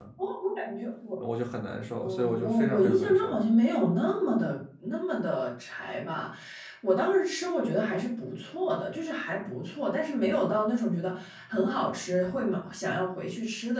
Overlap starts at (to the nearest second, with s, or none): 2 s